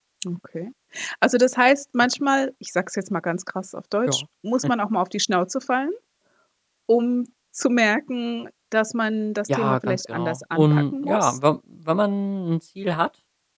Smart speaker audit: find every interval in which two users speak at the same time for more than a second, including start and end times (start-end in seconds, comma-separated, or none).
9.5-11.4